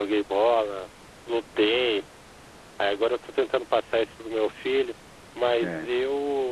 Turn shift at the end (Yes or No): No